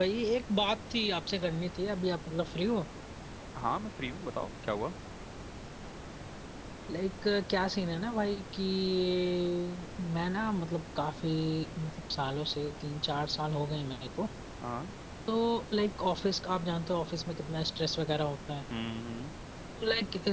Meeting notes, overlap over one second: none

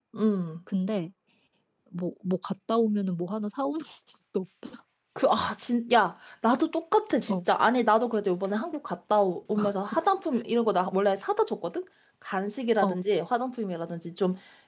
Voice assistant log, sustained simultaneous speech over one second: none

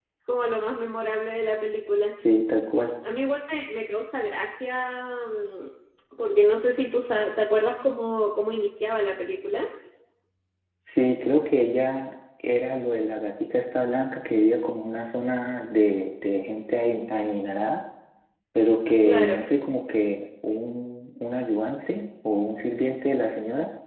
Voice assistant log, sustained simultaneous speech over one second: none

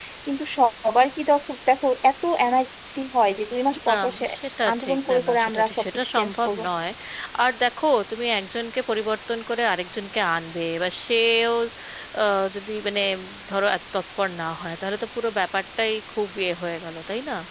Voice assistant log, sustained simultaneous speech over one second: present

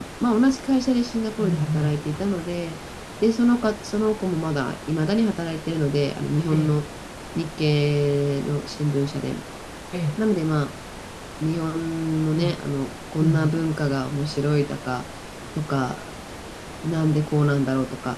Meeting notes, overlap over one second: none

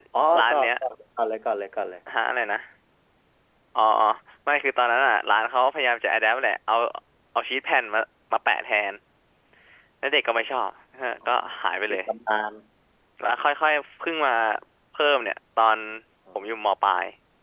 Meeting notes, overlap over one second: none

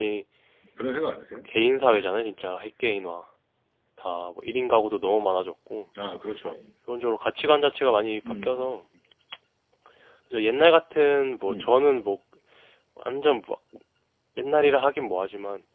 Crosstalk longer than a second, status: none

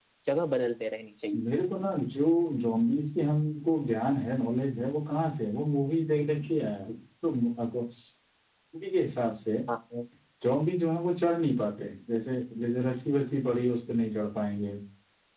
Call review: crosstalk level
none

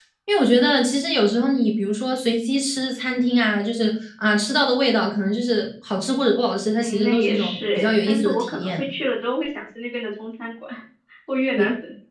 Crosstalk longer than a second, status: present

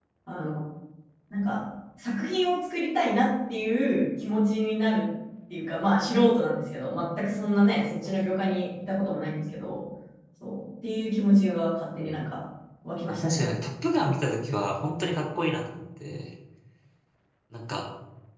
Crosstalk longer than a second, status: none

